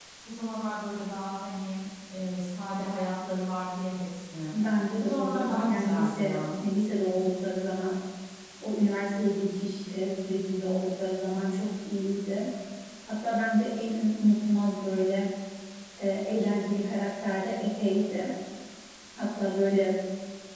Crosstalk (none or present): present